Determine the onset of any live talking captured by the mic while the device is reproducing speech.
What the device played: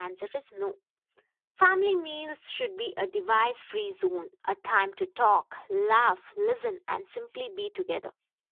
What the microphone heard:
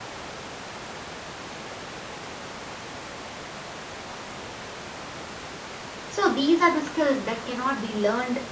6.1 s

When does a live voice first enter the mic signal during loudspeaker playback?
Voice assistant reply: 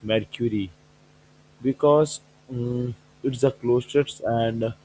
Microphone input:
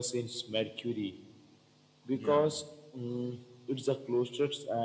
2.2 s

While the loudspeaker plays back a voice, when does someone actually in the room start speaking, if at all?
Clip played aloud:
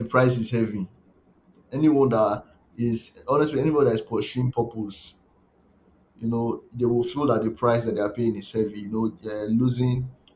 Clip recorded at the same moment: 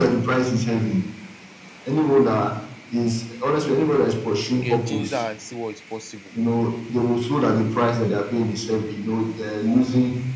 4.5 s

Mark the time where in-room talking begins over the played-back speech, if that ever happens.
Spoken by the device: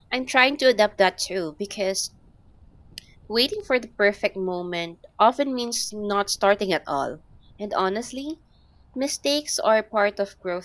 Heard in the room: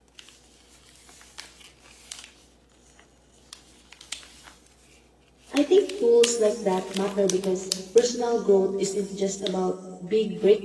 5.5 s

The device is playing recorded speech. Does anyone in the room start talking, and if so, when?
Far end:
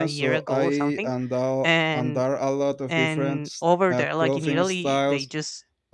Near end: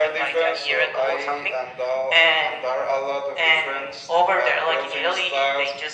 none

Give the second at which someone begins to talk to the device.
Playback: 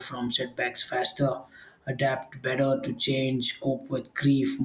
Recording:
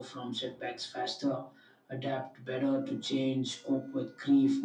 none

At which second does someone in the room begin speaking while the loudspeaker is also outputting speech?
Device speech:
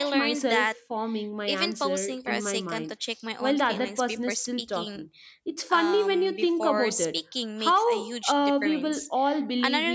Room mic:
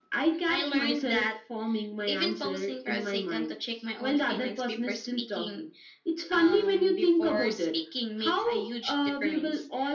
none

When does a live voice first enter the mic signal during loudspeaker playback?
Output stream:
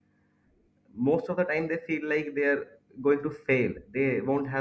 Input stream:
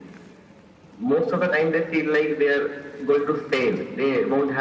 none

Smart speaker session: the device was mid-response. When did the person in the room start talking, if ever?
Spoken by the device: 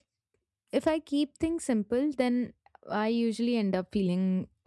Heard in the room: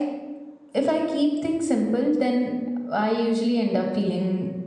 none

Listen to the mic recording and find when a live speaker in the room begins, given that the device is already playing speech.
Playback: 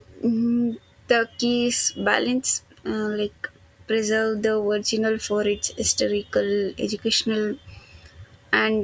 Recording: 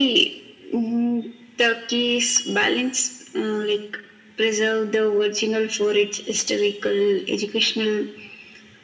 none

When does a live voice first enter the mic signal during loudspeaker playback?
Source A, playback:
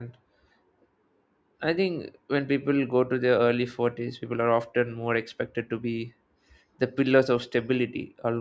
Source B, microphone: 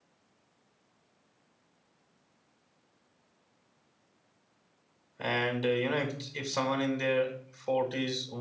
5.2 s

